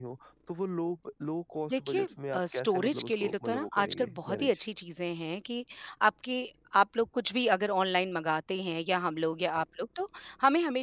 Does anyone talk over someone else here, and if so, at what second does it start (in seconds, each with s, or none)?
1.7 s